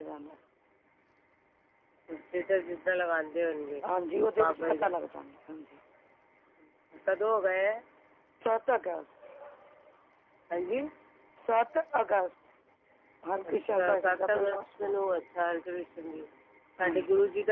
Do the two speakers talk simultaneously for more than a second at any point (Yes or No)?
Yes